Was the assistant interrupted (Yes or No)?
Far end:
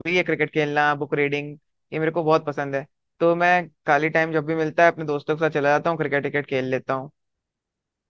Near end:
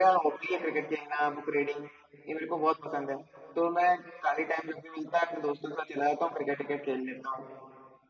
No